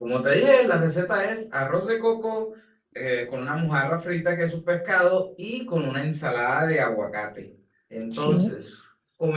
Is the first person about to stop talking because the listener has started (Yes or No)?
No